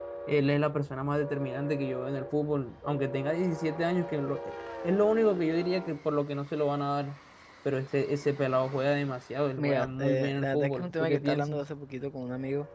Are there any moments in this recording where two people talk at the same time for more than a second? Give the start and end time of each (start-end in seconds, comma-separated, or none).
9.6-11.6